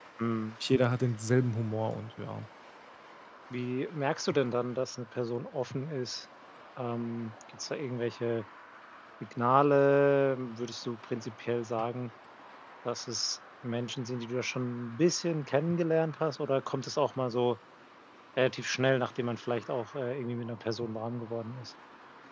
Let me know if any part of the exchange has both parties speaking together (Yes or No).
No